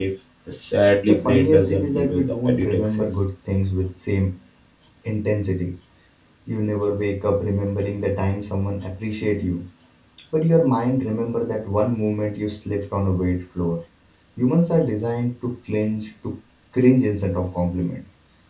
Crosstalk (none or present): present